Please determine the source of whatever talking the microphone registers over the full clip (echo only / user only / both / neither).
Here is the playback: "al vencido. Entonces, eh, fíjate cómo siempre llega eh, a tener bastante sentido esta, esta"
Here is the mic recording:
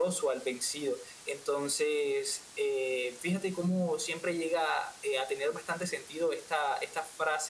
echo only